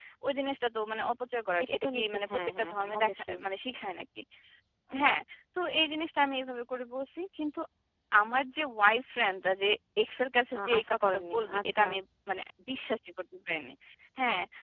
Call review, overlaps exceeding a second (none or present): present